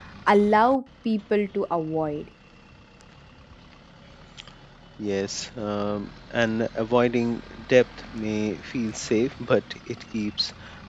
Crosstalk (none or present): none